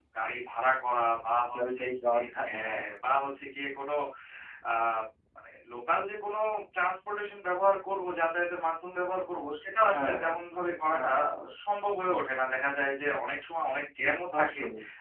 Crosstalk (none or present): present